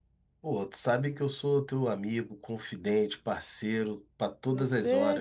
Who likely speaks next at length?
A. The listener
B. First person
A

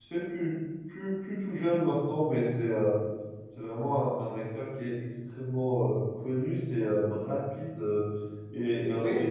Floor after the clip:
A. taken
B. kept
B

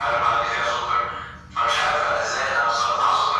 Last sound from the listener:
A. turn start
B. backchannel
B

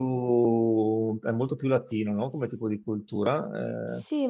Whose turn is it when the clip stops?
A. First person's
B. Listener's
B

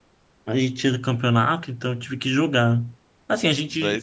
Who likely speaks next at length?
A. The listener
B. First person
B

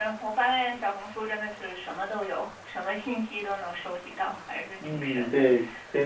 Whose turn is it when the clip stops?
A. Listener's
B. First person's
A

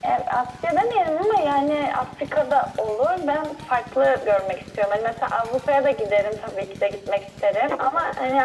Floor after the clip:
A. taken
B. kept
B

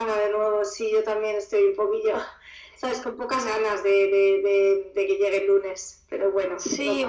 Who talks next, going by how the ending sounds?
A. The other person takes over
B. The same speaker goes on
A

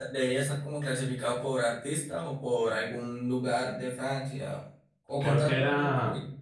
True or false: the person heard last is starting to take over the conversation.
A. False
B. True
B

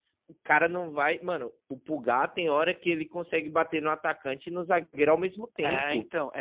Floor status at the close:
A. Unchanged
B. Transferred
B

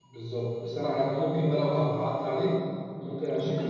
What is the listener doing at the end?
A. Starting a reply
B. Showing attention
B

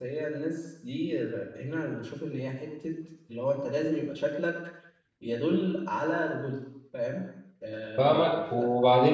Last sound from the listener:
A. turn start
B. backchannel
A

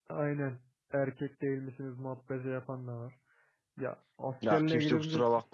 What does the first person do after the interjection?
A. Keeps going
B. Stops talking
B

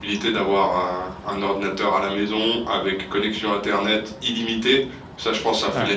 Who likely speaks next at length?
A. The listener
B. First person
B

